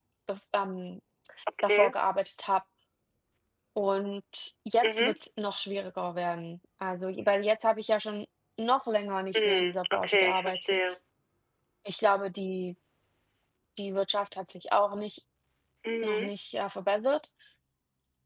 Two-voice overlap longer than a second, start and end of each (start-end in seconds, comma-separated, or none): 9.3-10.8